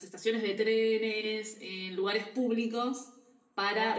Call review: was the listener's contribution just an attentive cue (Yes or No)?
No